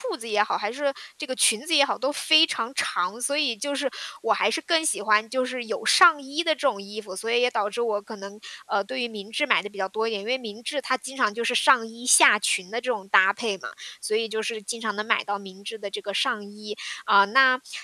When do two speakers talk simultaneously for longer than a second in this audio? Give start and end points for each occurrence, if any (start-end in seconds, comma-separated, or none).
none